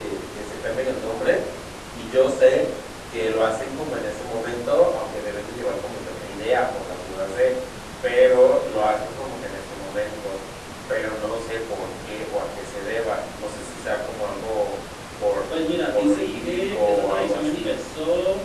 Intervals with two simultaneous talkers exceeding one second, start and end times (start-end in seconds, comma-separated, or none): 15.9-17.7